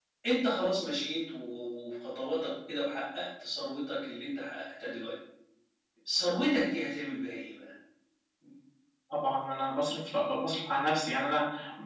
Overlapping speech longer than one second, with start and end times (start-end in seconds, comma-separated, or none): none